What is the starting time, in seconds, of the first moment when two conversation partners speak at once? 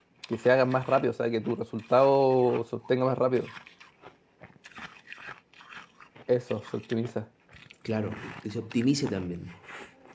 none

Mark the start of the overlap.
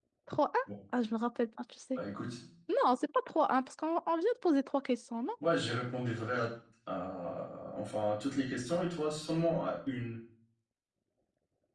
none

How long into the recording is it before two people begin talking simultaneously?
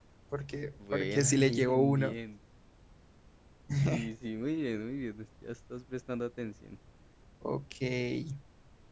0.9 s

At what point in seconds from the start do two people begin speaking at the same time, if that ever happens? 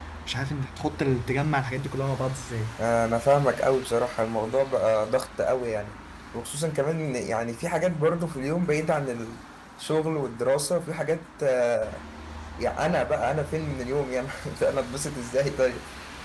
none

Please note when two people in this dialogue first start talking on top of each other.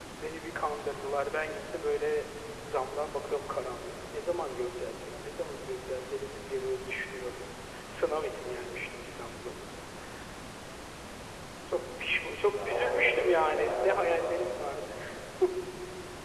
12.5 s

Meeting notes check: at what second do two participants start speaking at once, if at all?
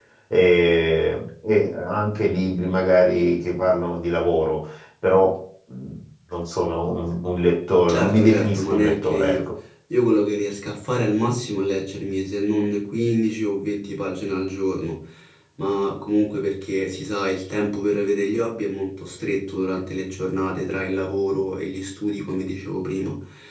7.9 s

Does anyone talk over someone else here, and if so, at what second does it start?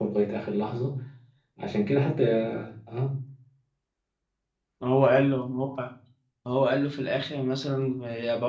none

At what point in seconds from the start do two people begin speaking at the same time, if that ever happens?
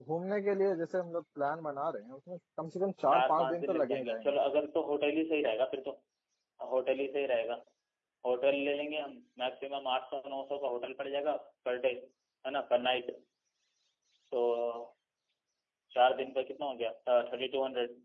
3.1 s

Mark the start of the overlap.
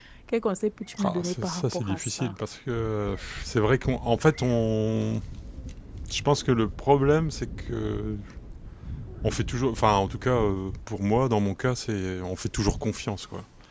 1.0 s

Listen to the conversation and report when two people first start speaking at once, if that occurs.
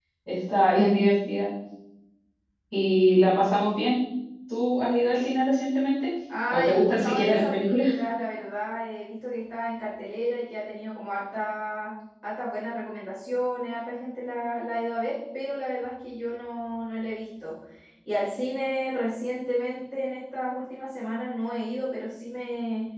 6.5 s

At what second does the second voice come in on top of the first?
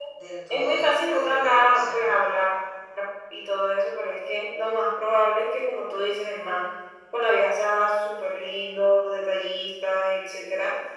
0.5 s

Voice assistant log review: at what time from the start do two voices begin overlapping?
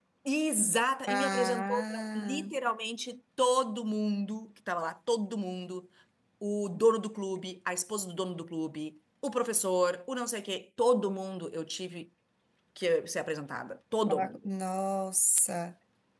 1.1 s

